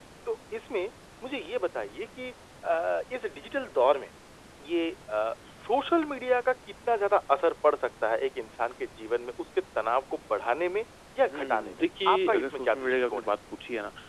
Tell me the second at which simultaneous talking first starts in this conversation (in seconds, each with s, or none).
11.3 s